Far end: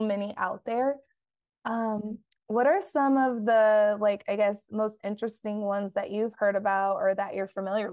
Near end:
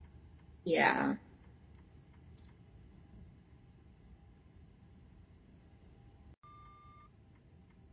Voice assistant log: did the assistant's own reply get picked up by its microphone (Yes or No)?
No